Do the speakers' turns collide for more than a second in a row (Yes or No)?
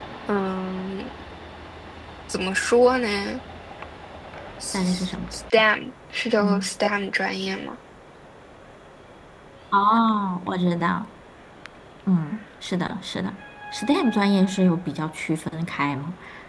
No